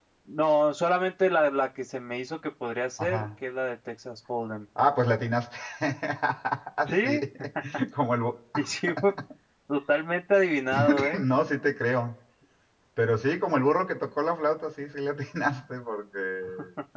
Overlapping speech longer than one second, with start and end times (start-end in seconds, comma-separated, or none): none